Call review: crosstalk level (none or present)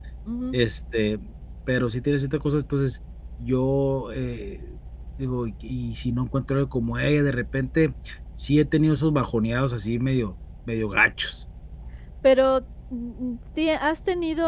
none